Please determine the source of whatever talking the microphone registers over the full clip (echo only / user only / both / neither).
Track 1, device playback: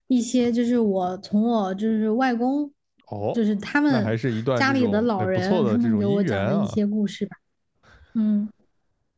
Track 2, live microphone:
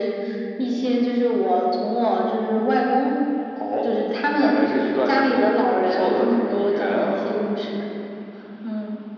echo only